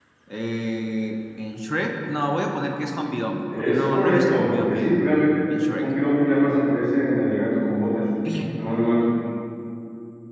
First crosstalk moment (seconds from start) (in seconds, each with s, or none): 3.5 s